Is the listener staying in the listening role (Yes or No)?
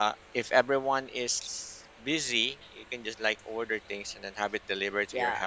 No